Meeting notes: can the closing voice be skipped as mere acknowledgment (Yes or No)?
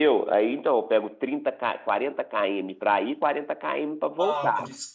No